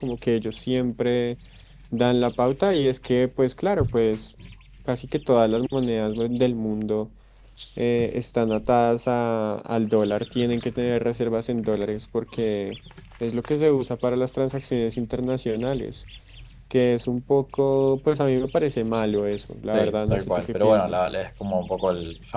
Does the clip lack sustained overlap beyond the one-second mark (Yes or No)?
No